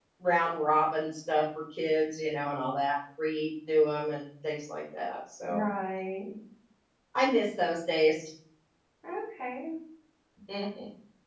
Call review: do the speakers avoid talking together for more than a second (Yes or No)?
Yes